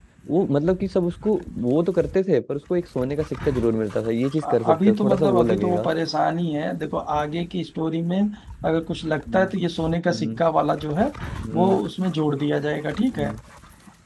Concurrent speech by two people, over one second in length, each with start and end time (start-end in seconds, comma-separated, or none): 4.4-5.9